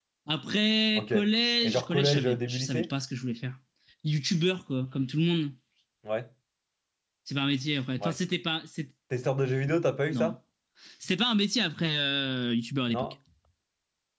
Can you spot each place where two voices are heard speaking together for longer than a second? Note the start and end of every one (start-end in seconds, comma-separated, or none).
1.6-2.9